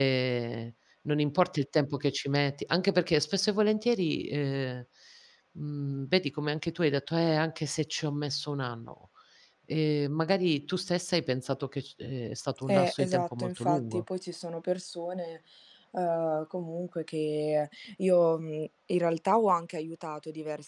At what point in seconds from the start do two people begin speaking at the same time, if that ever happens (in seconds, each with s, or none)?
12.7 s